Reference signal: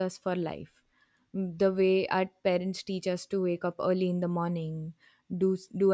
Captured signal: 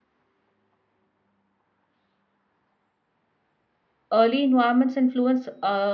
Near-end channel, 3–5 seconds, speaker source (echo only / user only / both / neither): user only